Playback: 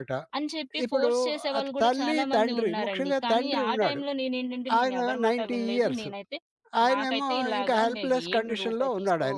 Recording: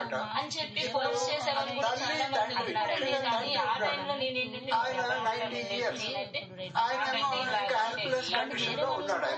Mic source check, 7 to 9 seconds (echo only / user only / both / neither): both